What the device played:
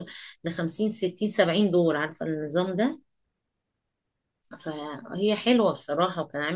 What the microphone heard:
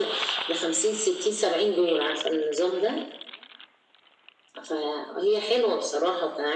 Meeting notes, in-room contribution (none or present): none